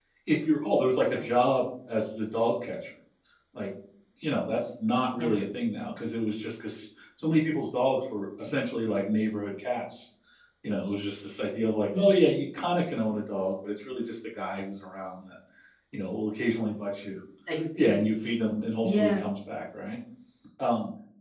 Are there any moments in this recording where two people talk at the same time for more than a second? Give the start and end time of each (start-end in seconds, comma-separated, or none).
none